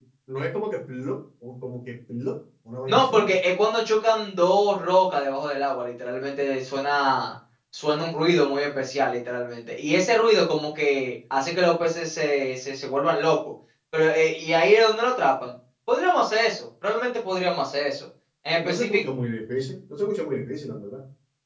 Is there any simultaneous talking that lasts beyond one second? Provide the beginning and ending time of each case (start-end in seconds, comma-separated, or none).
none